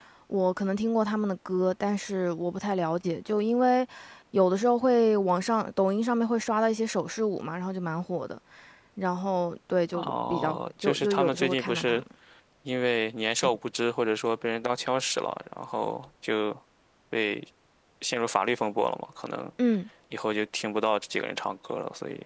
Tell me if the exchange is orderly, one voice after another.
No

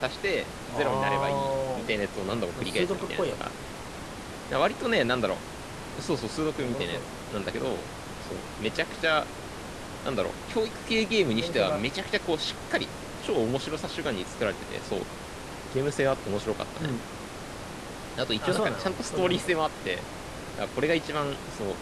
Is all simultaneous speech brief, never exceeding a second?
No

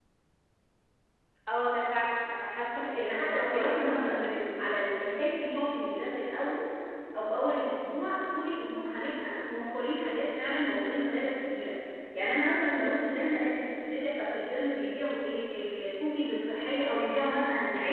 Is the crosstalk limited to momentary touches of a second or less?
No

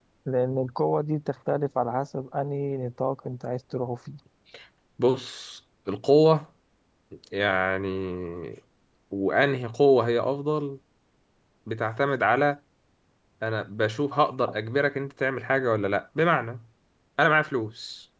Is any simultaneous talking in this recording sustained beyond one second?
No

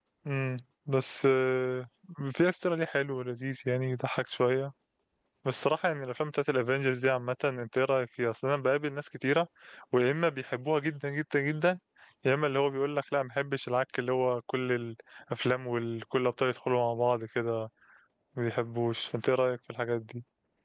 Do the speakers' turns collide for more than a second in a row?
No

